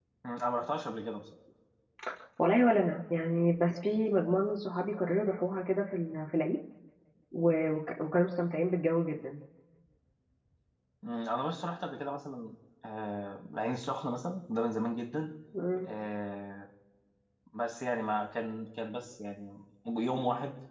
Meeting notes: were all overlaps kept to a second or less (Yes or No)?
Yes